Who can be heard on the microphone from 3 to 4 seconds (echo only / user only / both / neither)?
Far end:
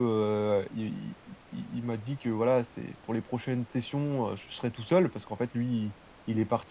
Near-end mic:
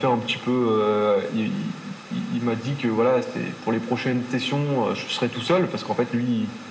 echo only